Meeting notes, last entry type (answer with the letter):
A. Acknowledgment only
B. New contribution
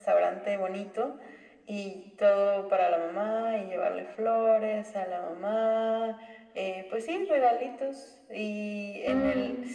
A